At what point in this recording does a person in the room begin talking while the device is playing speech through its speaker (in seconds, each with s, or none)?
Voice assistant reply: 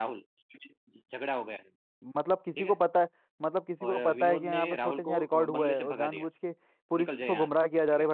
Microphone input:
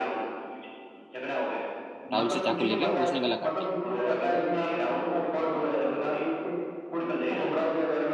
2.1 s